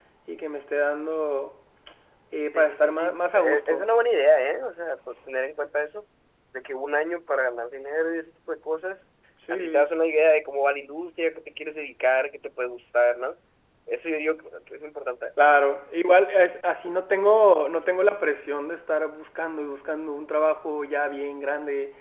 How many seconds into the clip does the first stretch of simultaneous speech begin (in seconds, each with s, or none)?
2.5 s